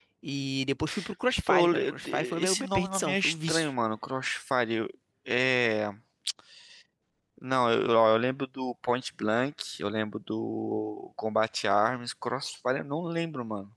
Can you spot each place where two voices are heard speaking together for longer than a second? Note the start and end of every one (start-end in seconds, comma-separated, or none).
1.5-3.7